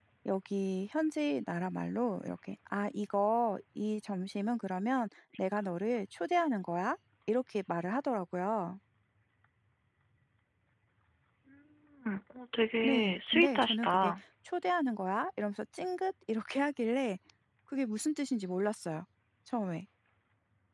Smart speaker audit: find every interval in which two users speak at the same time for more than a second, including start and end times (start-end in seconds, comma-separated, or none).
12.8-14.1